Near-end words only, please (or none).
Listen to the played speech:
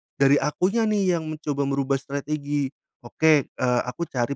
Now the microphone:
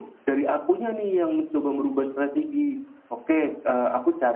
none